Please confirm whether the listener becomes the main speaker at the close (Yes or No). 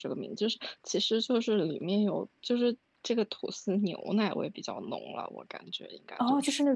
Yes